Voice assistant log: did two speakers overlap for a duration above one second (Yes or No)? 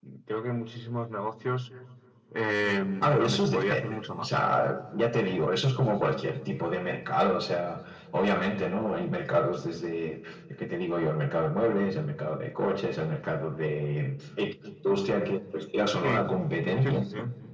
Yes